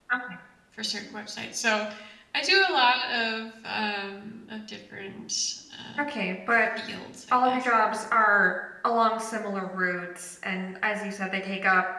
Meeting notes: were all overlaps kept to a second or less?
Yes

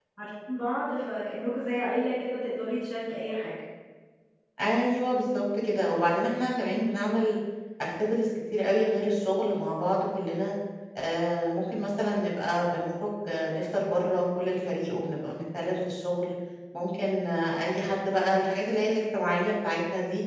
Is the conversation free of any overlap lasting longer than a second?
Yes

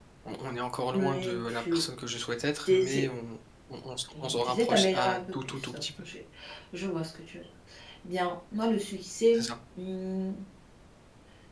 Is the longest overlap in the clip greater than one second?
Yes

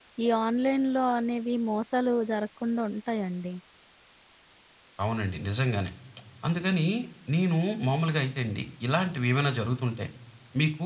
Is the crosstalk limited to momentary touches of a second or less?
Yes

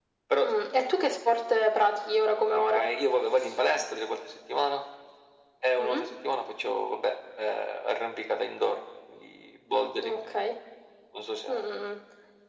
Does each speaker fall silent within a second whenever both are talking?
Yes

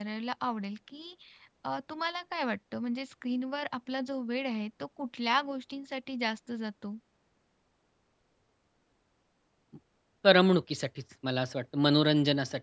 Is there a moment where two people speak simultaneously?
No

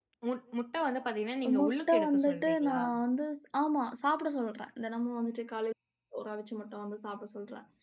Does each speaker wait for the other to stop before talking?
No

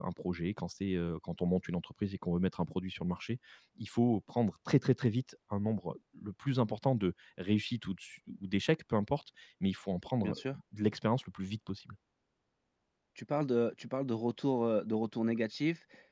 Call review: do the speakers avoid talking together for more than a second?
Yes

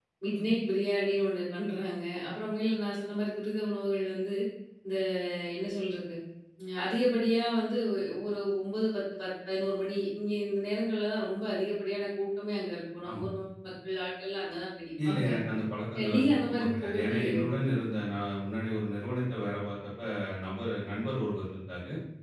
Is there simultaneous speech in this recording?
Yes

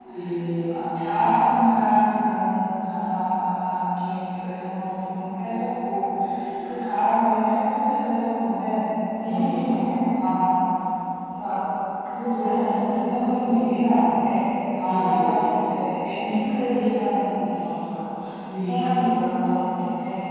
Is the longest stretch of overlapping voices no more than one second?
Yes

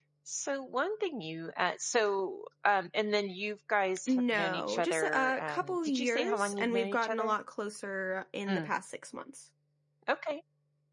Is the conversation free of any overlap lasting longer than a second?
No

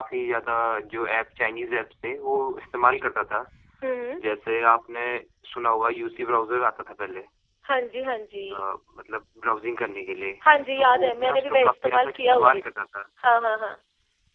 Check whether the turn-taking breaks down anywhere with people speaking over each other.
Yes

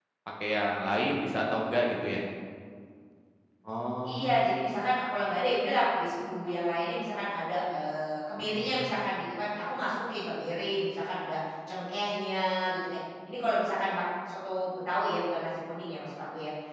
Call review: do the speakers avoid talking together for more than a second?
Yes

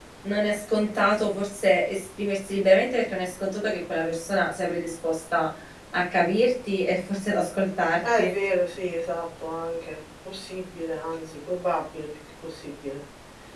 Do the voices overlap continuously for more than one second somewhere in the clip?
No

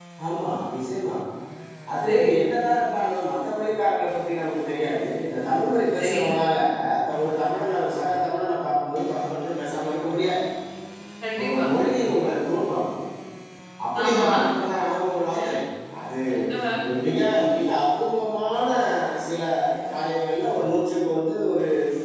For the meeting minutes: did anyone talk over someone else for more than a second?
No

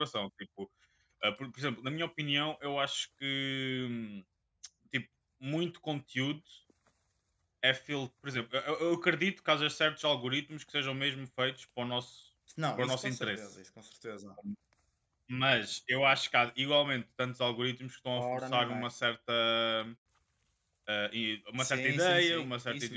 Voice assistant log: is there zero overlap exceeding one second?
No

